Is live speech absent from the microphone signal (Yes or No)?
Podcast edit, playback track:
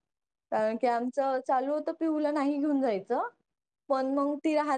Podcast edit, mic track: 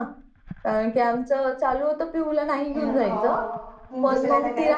No